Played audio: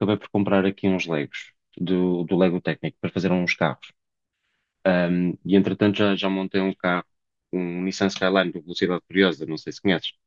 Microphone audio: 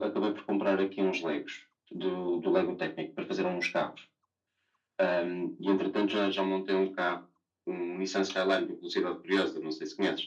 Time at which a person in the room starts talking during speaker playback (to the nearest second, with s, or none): none